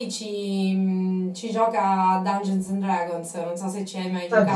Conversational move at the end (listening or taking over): taking over